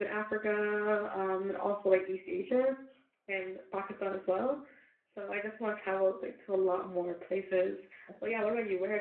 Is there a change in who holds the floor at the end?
No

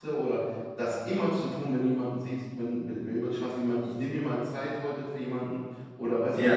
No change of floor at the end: Yes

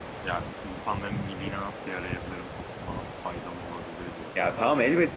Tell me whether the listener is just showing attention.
No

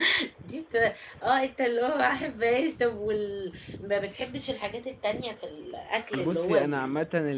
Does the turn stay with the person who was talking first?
No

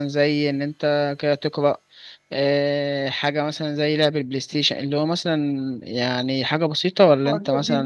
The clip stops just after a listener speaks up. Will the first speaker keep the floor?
No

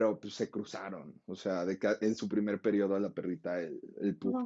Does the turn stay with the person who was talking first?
Yes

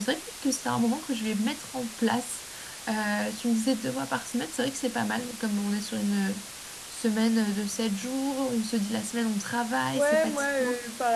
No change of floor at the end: No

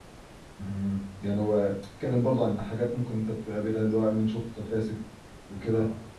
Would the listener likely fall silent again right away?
Yes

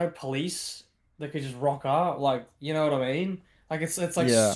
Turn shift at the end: No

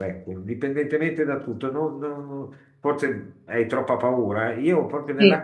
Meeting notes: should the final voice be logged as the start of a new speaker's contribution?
No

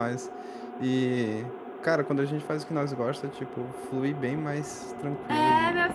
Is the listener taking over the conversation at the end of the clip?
Yes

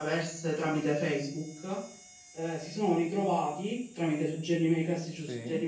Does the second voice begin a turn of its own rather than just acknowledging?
No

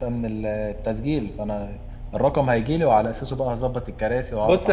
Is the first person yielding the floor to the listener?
Yes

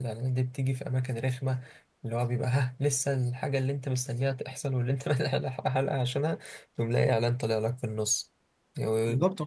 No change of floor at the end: No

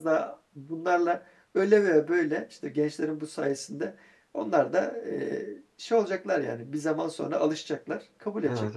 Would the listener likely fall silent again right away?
No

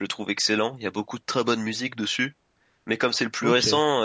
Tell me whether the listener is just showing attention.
Yes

